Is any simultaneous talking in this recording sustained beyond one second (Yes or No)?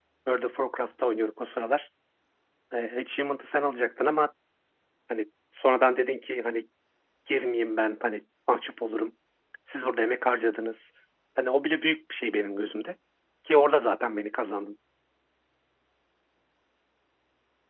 No